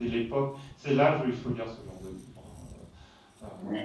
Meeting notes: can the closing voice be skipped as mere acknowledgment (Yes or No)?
No